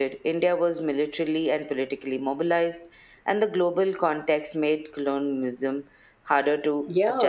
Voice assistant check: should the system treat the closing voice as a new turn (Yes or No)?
Yes